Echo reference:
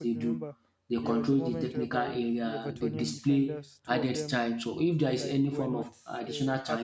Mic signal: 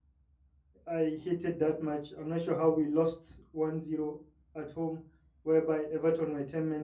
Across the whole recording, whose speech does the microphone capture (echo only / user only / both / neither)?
user only